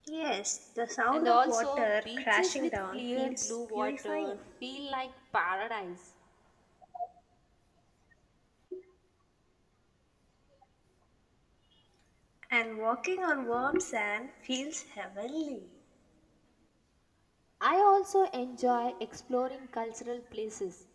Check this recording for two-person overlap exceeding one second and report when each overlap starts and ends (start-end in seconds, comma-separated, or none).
1.1-4.4